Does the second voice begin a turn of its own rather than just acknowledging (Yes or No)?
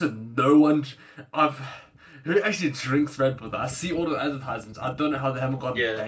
Yes